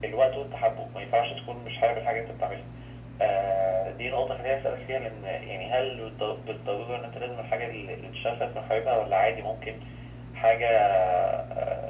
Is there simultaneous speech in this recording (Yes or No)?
No